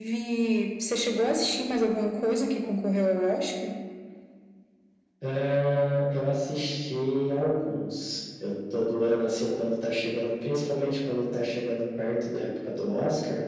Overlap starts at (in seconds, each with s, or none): none